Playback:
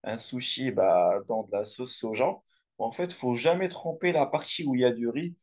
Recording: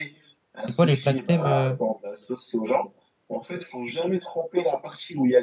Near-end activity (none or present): present